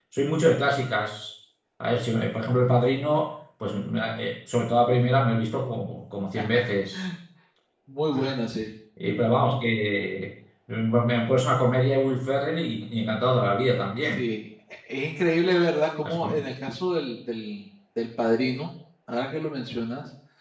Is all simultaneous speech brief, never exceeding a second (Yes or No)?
Yes